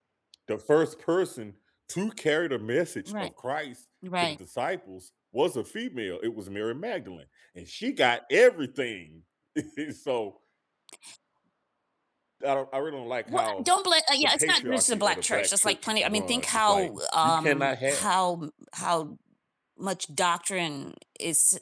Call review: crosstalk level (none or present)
present